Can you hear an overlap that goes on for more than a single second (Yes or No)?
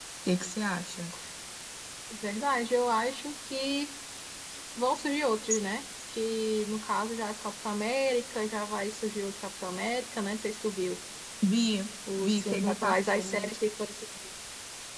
Yes